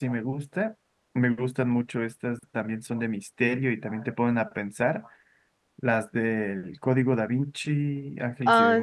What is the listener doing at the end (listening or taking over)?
listening